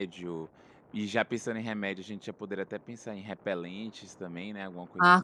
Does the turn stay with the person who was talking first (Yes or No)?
No